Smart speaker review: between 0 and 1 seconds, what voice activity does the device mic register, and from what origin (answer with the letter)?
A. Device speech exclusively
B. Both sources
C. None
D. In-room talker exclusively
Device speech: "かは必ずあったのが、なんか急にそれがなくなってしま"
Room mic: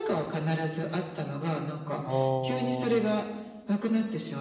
A